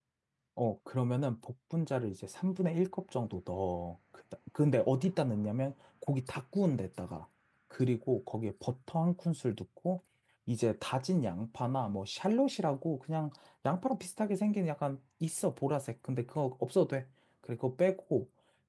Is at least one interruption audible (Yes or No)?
No